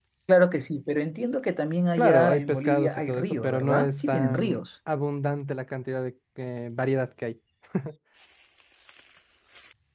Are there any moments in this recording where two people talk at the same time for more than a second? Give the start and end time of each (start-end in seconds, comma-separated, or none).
2.0-4.6